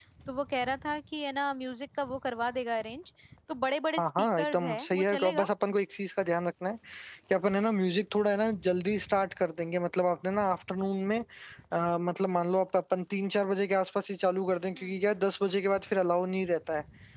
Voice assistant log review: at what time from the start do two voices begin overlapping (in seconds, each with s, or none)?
4.0 s